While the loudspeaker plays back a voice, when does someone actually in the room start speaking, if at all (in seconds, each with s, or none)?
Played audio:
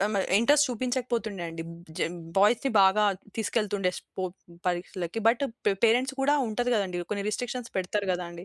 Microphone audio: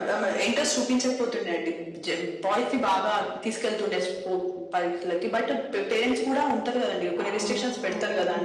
7.2 s